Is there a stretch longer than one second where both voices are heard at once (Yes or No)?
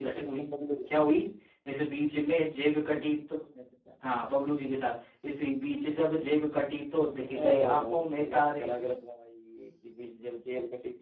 Yes